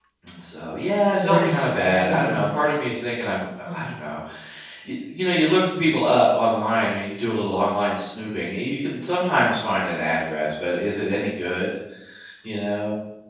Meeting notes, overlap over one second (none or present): present